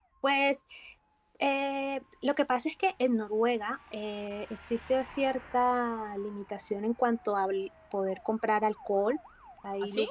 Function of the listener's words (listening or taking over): listening